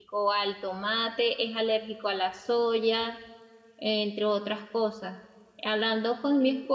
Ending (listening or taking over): listening